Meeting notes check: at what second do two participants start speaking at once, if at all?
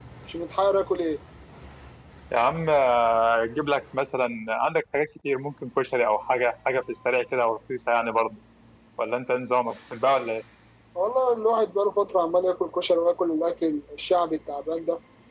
none

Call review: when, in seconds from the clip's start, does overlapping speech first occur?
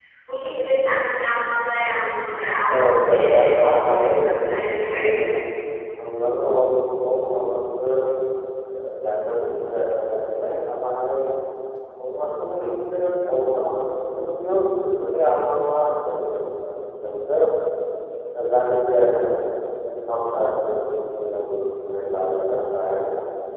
3.1 s

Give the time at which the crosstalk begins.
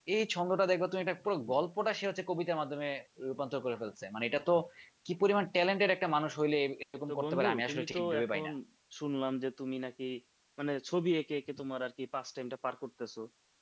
7.1 s

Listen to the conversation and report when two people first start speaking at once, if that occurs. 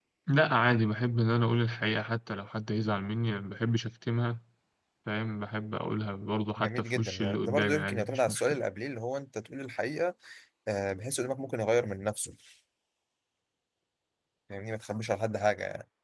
6.6 s

